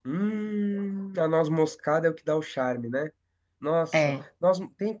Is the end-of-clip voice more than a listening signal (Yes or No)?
No